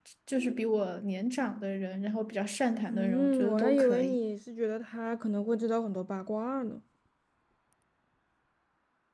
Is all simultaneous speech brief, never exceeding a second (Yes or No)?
No